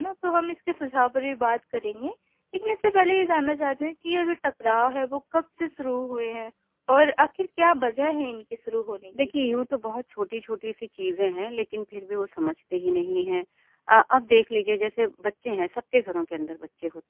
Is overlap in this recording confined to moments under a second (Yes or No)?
Yes